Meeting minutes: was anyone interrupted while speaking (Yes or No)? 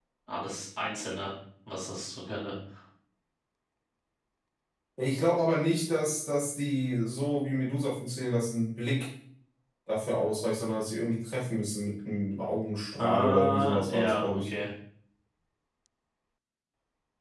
Yes